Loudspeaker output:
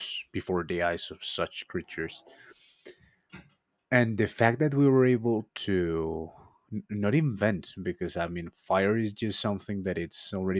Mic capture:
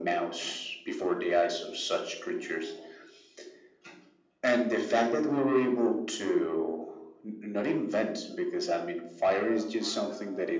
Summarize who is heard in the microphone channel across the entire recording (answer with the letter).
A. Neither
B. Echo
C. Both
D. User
C